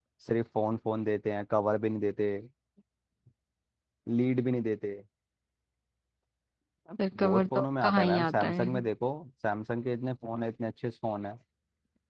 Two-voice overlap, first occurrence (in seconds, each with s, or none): 7.1 s